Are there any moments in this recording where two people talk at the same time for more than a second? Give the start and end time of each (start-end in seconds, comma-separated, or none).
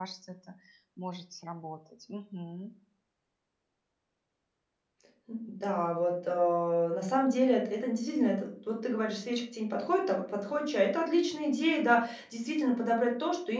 none